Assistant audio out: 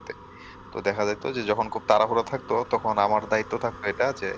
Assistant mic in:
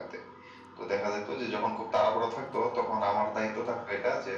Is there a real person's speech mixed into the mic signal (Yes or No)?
No